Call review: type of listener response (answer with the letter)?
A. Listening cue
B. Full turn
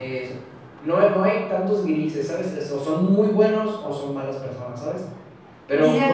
A